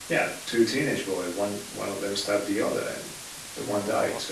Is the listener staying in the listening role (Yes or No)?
No